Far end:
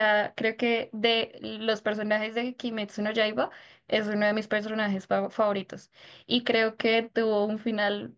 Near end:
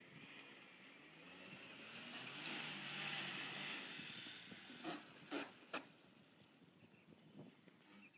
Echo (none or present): none